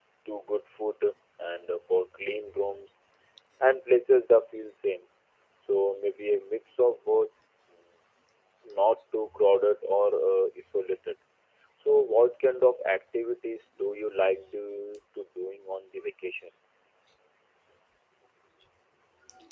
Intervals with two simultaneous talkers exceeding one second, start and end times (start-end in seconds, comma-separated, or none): none